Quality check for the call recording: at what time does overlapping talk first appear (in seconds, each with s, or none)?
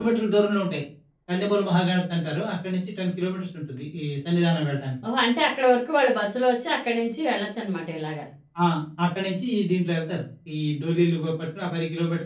none